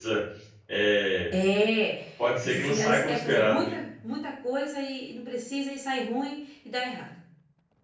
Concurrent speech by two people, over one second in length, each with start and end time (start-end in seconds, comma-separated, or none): 2.4-3.7